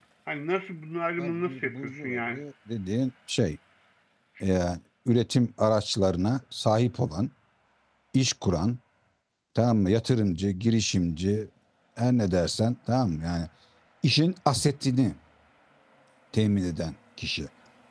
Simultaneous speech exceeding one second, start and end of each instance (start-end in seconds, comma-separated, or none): 1.2-2.4